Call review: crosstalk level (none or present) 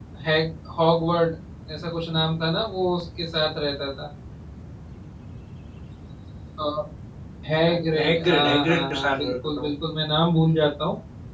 present